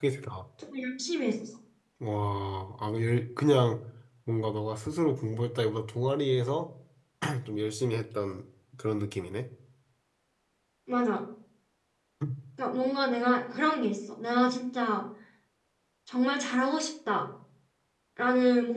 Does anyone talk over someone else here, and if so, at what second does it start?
none

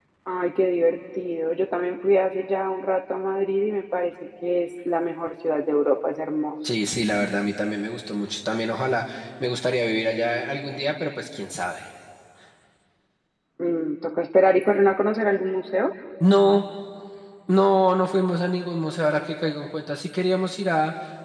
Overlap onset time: none

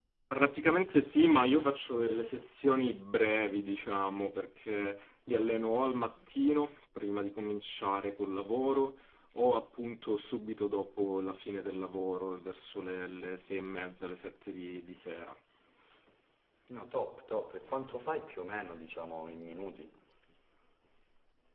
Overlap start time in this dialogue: none

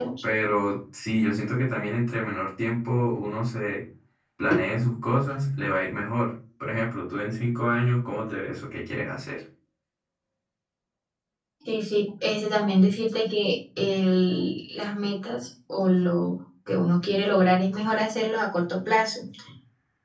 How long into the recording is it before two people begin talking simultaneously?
none

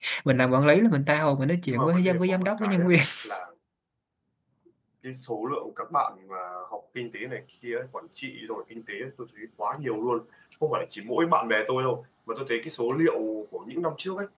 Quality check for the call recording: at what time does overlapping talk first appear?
2 s

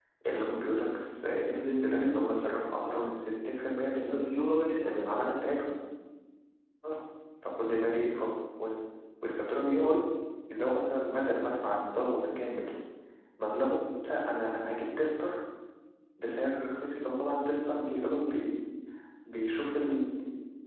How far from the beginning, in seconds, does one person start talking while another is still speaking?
2 s

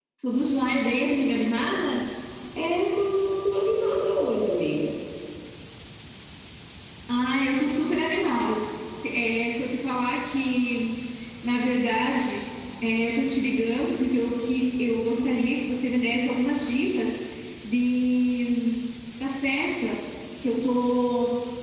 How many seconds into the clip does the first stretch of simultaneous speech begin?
none

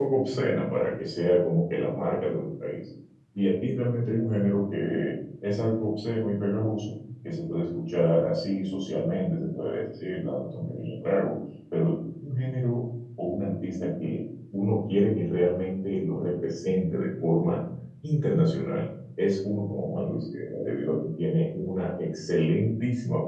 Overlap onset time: none

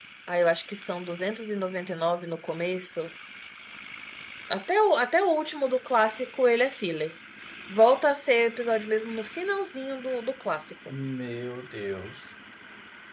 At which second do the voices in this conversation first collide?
none

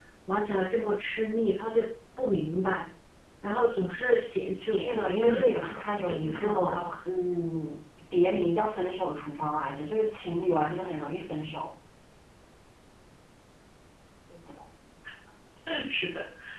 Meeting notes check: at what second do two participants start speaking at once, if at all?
5 s

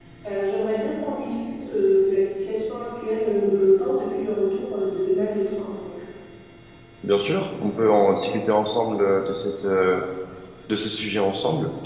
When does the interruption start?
none

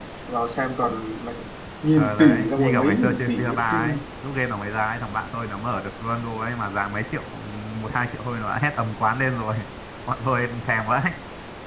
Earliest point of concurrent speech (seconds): 2 s

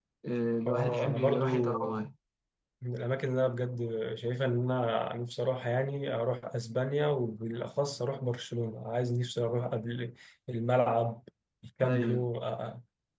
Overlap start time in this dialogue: 1 s

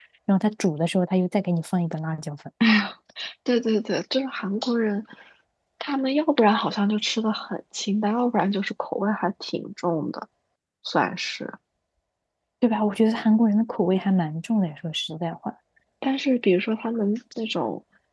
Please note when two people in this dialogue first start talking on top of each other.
none

